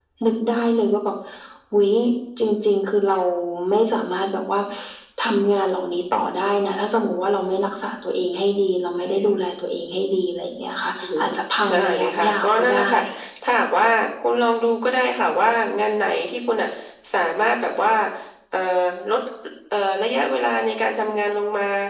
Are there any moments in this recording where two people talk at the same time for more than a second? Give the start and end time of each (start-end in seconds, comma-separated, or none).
11.7-12.9